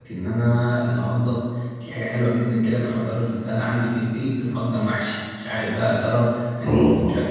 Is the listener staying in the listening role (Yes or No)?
Yes